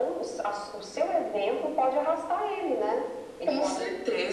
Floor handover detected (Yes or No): Yes